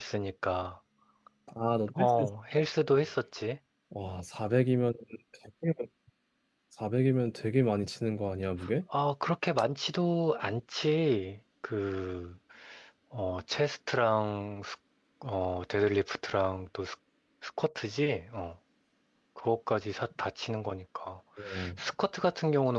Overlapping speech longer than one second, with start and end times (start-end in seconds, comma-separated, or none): none